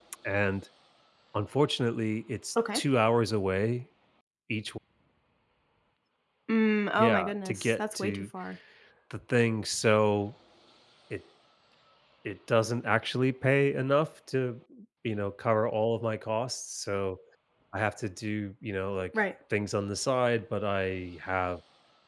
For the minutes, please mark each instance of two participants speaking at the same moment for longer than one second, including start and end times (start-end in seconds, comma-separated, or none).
7.0-8.2